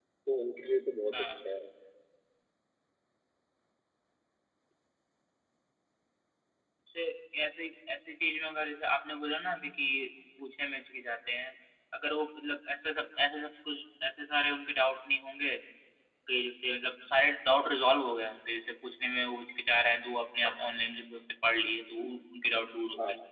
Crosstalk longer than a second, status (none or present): none